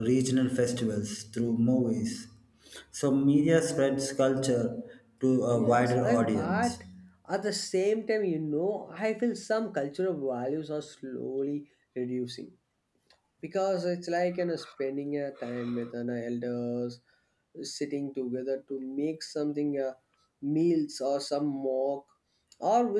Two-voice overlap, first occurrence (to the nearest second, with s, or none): 6 s